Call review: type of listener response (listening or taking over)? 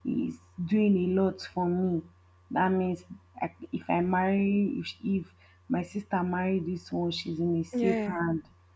listening